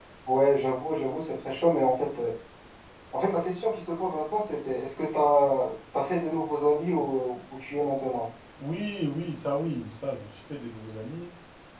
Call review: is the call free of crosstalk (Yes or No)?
Yes